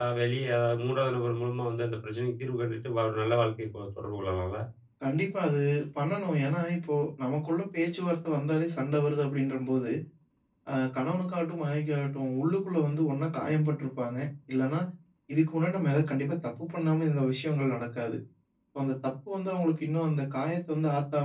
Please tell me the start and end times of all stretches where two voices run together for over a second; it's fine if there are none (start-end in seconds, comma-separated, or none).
none